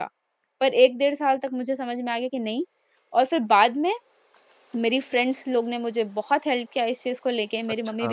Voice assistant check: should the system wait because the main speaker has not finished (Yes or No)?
Yes